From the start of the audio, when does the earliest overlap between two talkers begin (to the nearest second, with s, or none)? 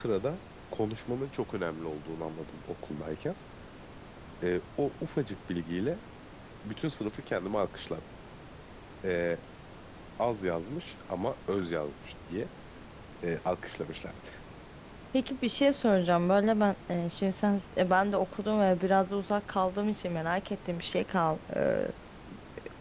none